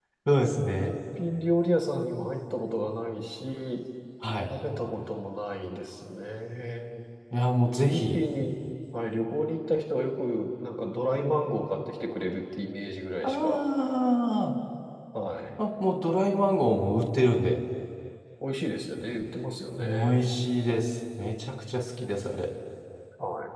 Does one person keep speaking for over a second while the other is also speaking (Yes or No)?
No